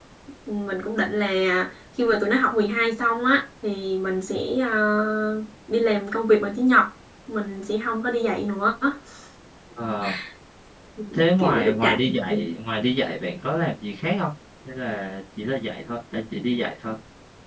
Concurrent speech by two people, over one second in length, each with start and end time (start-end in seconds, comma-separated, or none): 11.1-12.4